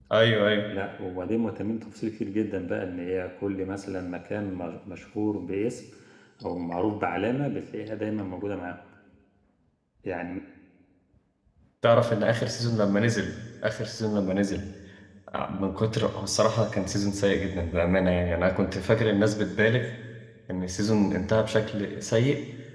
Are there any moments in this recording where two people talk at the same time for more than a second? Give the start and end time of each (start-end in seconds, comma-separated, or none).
none